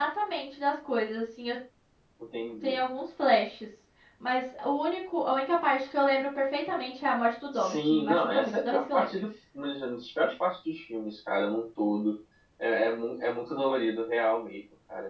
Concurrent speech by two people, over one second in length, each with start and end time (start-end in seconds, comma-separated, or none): 7.5-9.1